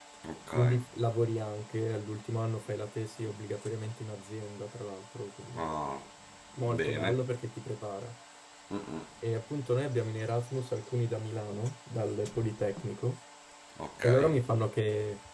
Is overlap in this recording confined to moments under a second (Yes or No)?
Yes